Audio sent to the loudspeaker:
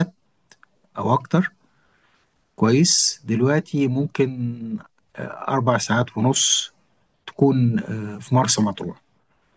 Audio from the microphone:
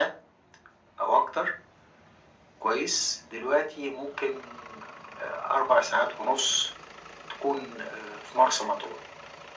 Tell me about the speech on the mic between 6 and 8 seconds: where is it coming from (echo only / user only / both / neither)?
echo only